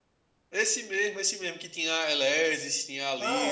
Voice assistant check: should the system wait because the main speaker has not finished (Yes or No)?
No